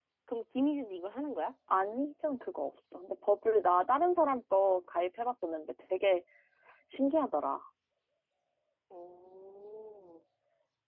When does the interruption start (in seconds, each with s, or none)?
none